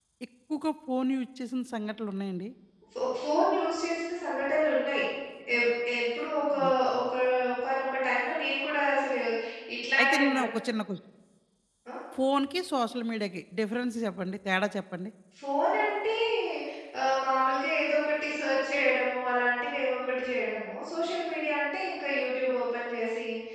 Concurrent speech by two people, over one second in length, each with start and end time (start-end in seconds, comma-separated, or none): none